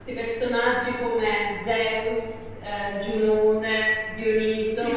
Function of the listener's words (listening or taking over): listening